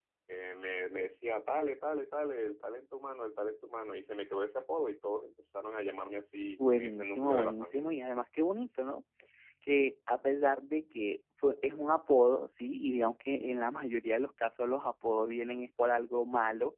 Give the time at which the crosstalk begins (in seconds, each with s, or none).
6.6 s